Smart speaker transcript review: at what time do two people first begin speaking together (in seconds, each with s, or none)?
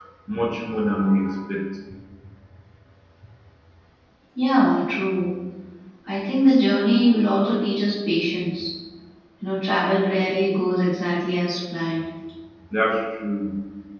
none